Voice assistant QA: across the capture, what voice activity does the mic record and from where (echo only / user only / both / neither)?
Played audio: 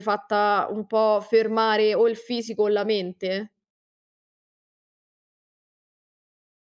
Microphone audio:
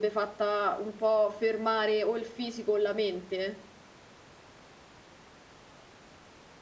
echo only